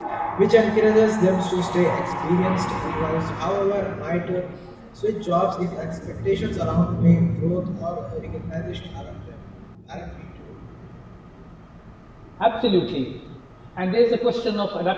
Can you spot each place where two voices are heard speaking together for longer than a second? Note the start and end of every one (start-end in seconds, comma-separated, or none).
none